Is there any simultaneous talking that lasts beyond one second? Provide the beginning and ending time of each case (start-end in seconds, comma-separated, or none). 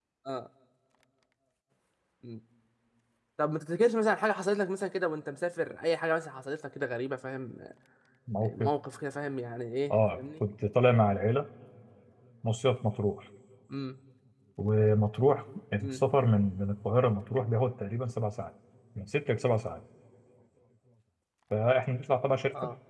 none